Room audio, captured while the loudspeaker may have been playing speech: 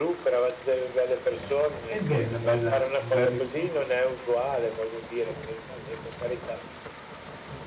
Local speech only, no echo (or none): Eh beh, è una bella un bel rico